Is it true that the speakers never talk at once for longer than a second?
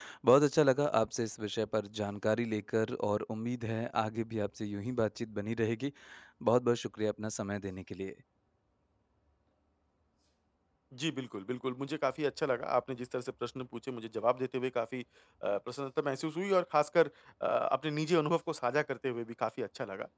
Yes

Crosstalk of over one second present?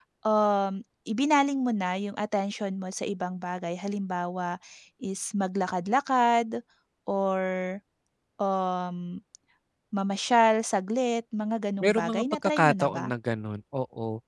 Yes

